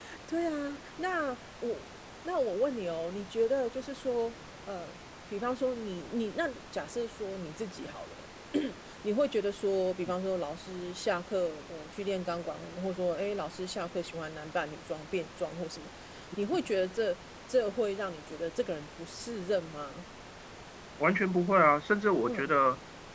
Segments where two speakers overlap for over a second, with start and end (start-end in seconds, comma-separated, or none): none